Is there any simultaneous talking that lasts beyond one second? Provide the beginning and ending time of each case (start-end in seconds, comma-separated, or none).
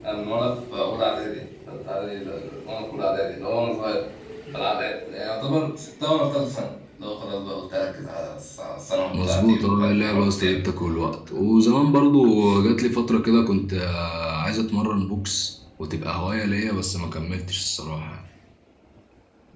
9.2-10.6